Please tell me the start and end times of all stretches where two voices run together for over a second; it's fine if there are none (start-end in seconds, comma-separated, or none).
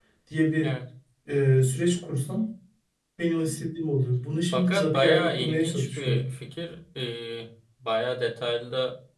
4.5-6.2